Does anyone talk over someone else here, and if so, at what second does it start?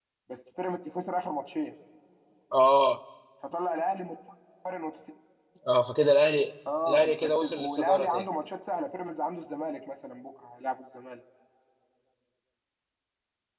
6.7 s

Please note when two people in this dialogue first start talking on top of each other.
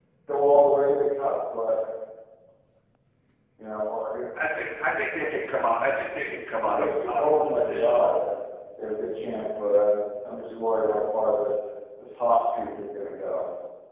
6.7 s

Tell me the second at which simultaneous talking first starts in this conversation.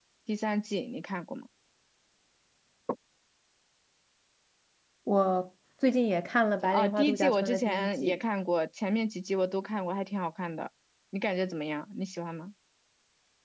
6.6 s

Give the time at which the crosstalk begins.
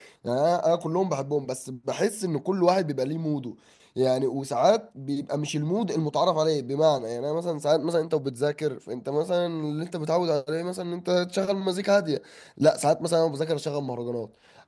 none

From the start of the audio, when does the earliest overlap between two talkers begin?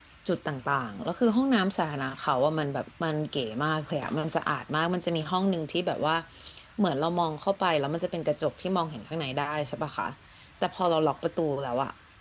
none

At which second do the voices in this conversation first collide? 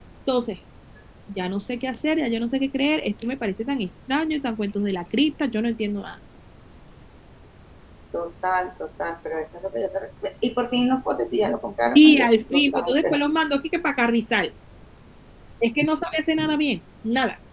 11.9 s

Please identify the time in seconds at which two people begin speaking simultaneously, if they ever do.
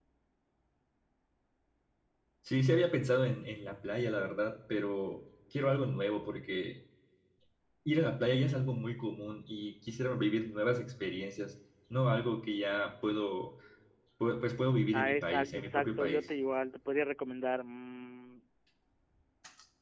14.9 s

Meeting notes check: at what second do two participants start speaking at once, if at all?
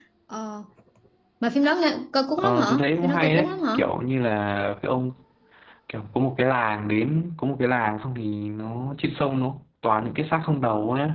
2.4 s

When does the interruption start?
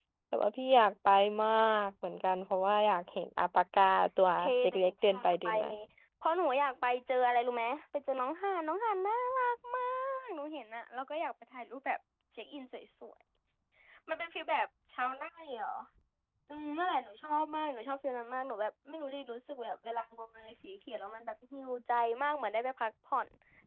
4.4 s

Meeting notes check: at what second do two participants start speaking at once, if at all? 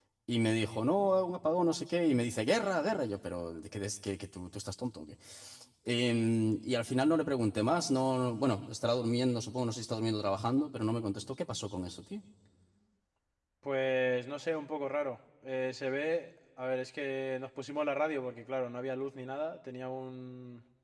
none

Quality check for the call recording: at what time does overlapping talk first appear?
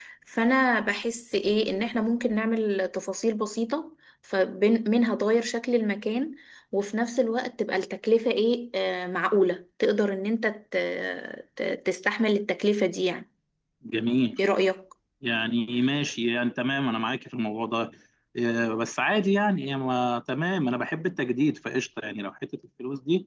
none

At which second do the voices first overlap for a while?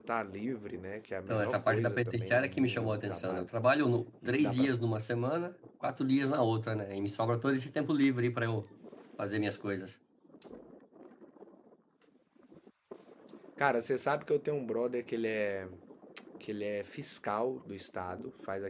1.3 s

